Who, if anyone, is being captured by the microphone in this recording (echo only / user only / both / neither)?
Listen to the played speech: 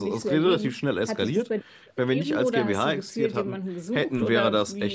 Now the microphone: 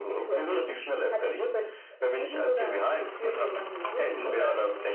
echo only